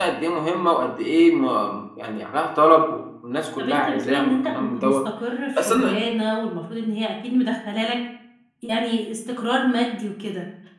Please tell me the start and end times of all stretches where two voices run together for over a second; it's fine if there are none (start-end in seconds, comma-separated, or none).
3.6-5.0